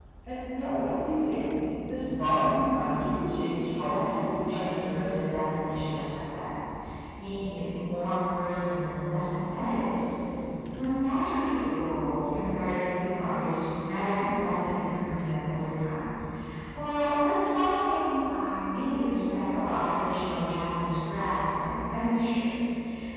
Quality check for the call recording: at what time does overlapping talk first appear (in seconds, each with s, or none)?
2.8 s